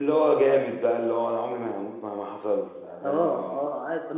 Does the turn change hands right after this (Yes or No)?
Yes